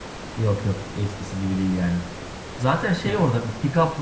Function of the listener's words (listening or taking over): listening